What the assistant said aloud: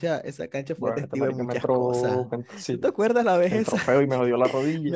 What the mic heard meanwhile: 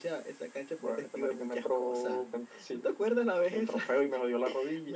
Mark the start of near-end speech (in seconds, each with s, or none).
none